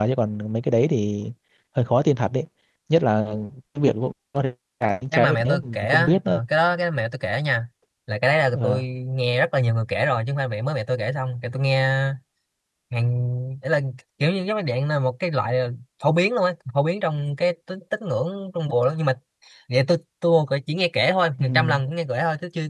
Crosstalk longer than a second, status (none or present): present